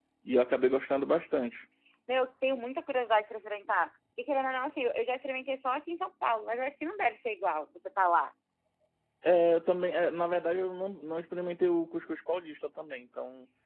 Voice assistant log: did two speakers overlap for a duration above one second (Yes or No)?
No